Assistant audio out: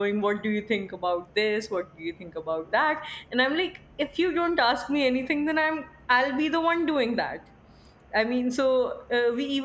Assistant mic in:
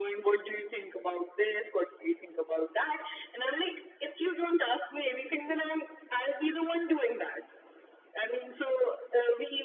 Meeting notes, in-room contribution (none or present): none